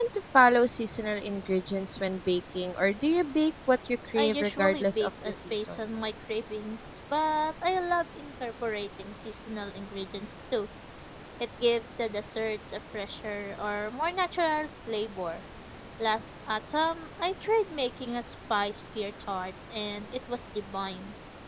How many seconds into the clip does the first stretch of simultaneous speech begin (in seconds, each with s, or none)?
4.2 s